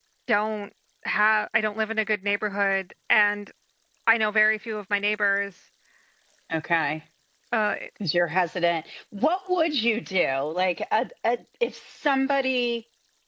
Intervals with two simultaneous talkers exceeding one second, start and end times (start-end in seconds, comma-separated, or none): none